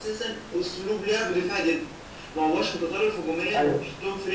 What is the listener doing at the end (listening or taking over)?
listening